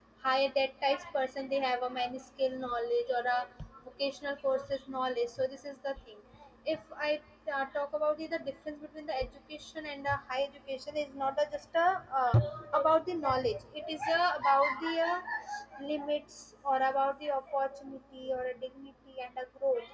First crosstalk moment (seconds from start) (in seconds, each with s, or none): none